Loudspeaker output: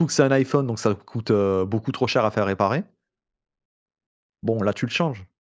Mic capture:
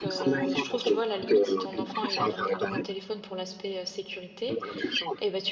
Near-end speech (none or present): present